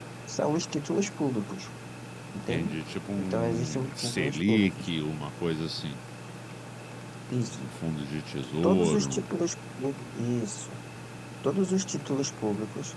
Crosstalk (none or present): present